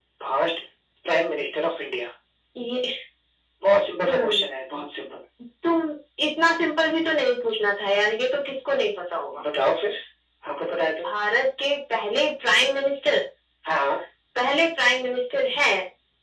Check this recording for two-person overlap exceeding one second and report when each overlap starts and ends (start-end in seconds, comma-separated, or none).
none